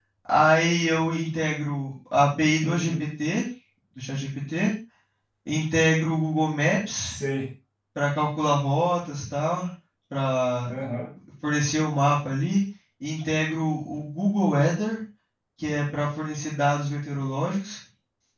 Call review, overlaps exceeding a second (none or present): none